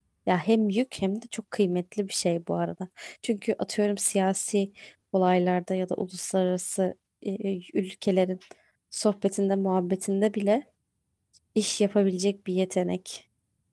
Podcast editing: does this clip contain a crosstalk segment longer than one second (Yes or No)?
No